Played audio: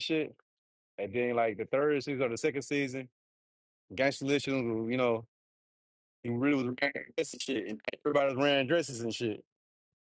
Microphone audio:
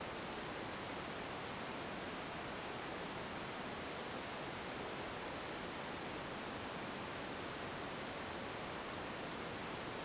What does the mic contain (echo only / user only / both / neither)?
neither